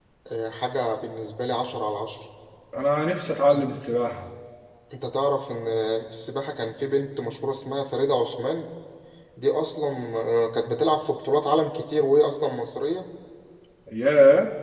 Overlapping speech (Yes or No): No